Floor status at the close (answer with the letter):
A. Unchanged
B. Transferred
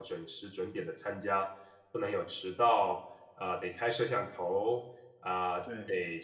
A